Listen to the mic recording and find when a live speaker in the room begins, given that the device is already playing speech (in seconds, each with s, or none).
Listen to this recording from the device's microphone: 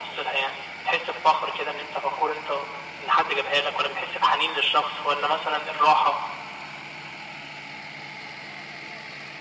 none